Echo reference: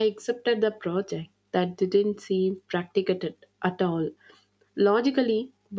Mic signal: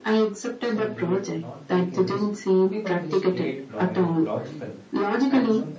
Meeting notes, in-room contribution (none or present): present